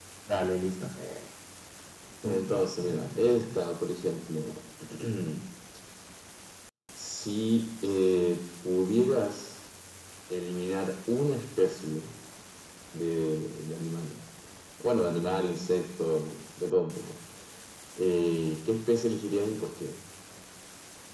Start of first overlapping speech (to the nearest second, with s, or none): 2 s